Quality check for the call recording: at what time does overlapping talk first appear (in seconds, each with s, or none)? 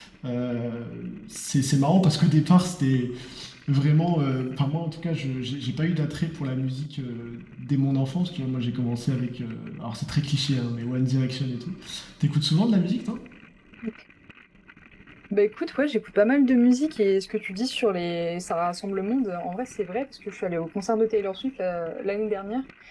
none